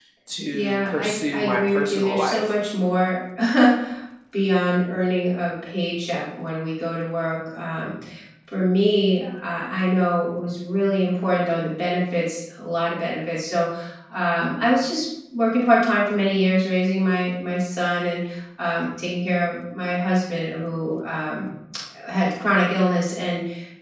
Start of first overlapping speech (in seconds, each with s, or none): 0.5 s